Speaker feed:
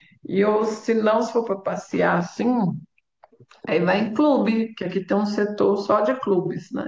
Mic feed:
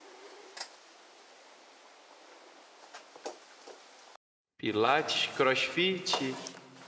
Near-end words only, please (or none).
Pilates, CrossFit